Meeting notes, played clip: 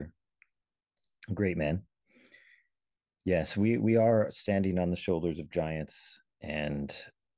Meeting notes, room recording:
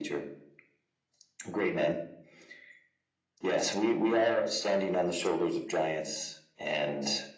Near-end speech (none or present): none